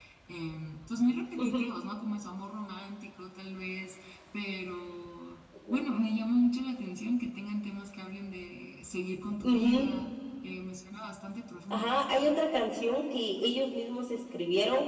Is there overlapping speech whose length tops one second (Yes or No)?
No